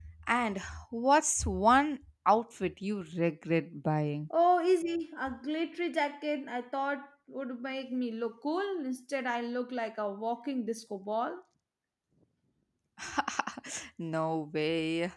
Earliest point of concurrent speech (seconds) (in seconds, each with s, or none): none